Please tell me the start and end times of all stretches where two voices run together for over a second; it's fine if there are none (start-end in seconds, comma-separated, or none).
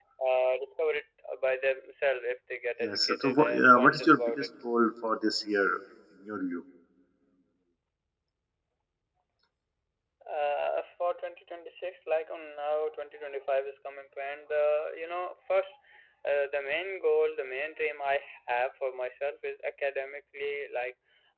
2.8-4.5